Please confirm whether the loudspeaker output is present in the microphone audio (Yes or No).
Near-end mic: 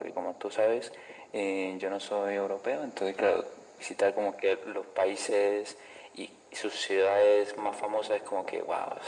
Yes